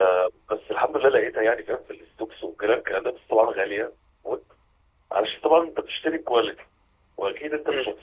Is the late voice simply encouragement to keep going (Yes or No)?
Yes